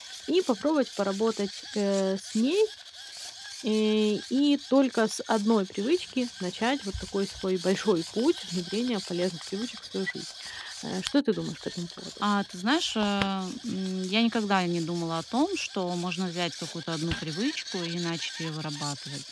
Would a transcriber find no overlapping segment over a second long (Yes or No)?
Yes